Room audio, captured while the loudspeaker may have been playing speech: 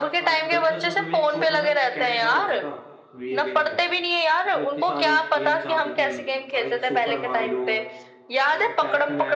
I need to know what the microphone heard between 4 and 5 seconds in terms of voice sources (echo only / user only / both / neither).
both